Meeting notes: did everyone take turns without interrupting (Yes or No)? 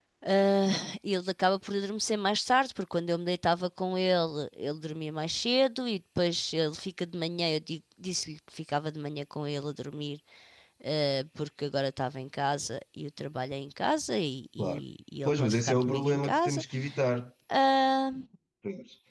No